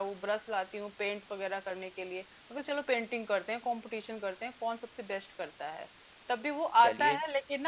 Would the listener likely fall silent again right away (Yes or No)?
Yes